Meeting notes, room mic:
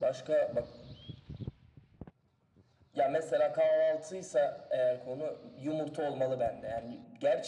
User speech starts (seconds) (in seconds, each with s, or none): none